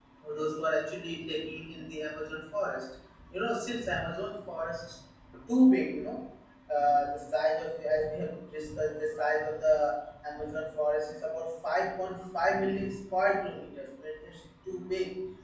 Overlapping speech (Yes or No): No